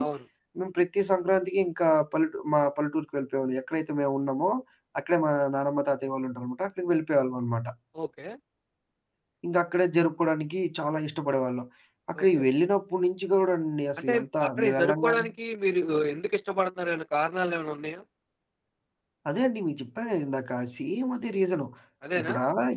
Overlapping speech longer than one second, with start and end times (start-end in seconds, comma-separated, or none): 14.0-15.2